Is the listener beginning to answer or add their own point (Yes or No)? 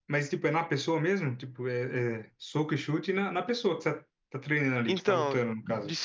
Yes